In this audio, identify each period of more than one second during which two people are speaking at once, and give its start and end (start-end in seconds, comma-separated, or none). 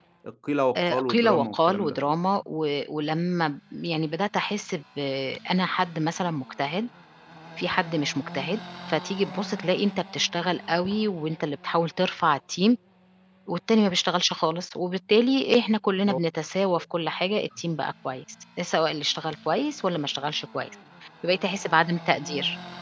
0.8-2.0